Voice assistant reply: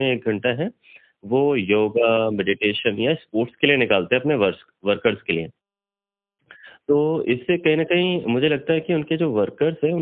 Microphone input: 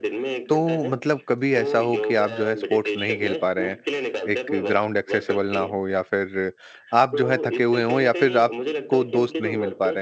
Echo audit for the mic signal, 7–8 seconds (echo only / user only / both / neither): both